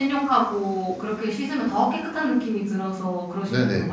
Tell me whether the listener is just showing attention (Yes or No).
No